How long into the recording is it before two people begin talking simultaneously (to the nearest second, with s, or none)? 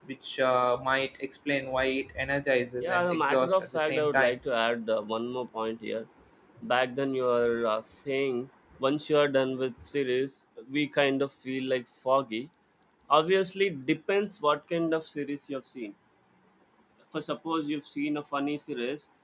3 s